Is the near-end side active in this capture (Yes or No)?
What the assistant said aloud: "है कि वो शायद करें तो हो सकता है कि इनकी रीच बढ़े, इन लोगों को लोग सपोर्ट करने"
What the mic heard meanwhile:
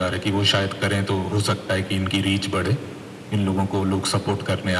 No